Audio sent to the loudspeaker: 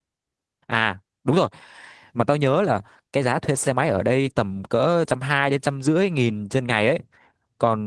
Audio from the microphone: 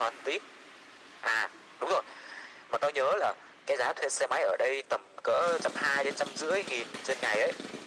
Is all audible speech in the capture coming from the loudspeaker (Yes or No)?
Yes